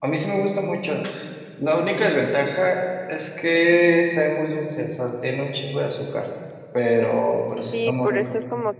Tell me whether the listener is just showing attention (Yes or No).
No